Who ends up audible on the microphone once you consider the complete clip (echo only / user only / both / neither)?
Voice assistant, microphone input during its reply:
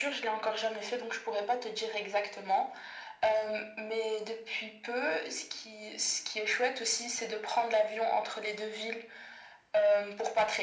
echo only